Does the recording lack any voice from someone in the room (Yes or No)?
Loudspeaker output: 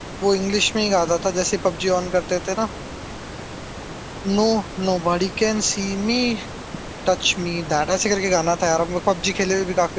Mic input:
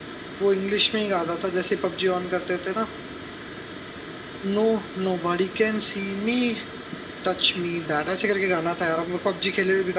Yes